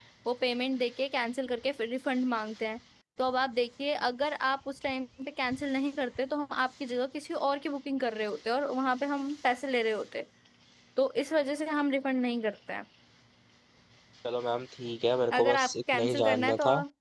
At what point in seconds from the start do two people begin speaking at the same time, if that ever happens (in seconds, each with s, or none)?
15.3 s